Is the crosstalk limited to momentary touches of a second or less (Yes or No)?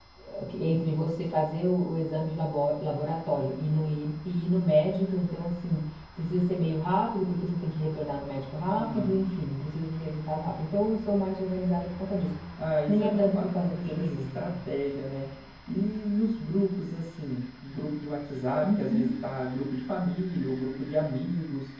No